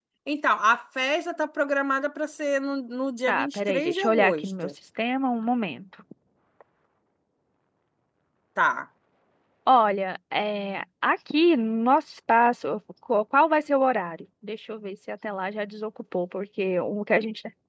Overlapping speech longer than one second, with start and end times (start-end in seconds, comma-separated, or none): 3.3-4.7